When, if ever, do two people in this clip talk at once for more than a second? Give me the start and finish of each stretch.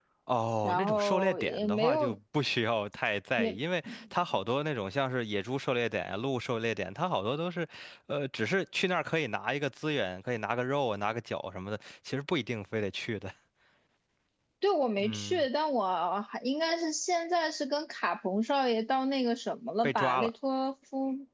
0.6-2.1

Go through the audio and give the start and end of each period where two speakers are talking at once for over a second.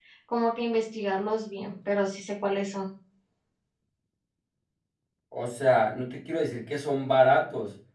none

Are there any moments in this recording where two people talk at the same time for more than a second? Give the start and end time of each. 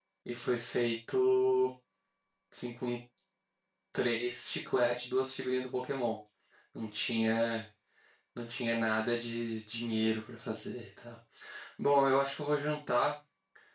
none

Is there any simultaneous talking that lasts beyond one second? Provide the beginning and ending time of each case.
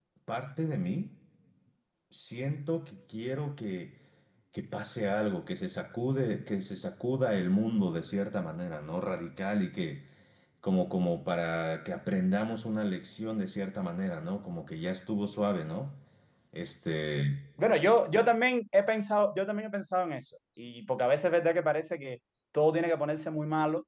none

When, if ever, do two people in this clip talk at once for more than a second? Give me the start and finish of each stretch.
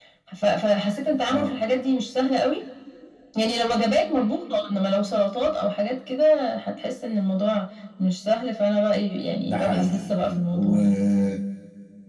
9.5-10.8

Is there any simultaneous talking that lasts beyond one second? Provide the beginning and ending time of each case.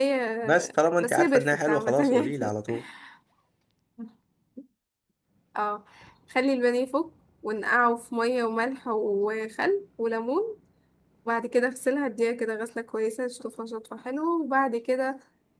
1.0-2.3

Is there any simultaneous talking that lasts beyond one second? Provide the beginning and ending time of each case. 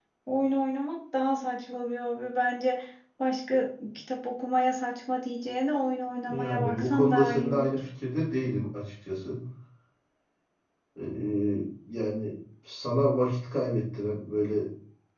6.3-7.8

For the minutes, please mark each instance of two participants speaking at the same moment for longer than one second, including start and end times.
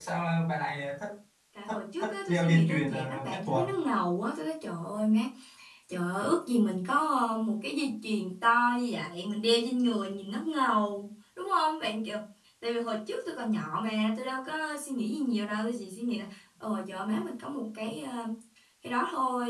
1.7-3.6

